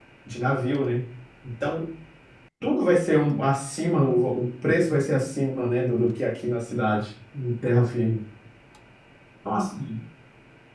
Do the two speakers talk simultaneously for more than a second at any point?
No

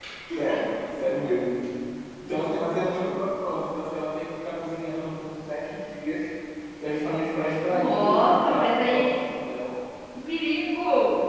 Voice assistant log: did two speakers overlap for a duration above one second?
Yes, from 7.7 s

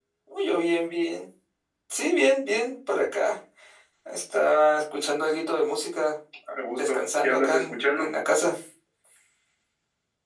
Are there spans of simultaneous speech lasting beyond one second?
Yes, from 6.8 s

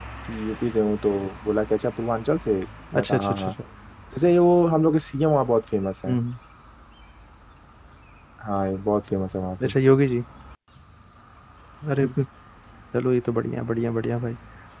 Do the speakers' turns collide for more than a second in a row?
No

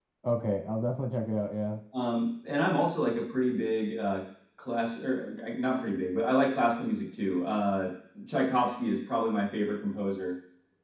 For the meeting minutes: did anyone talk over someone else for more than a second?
No

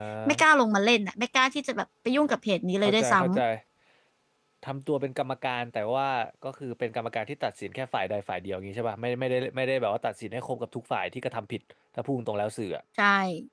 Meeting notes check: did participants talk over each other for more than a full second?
No

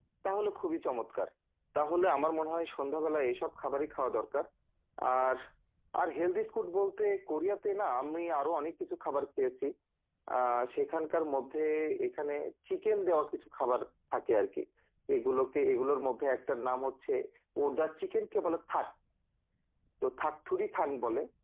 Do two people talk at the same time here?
No

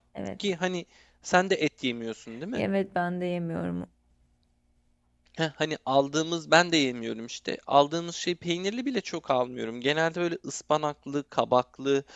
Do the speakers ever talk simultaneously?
No

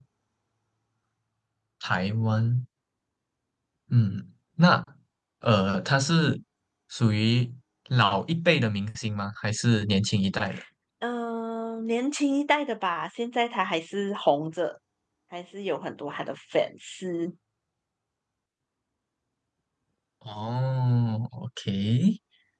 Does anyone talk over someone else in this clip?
No

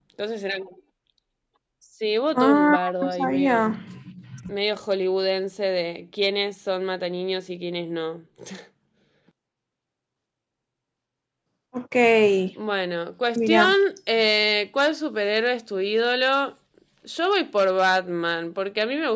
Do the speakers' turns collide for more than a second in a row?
Yes, from 2.4 s

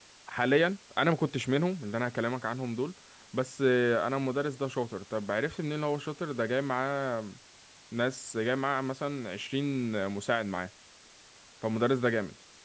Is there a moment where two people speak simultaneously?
No

